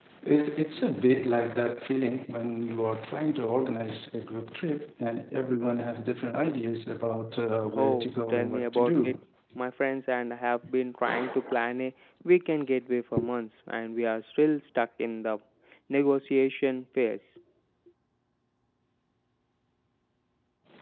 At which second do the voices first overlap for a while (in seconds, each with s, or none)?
7.8 s